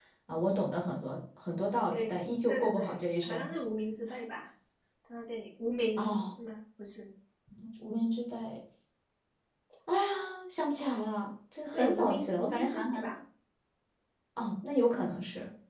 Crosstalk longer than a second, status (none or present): present